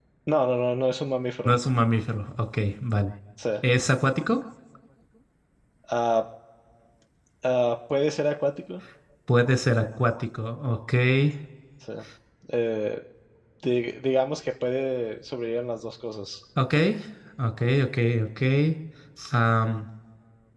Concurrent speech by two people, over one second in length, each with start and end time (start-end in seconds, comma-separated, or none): none